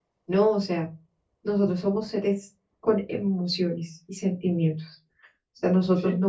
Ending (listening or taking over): listening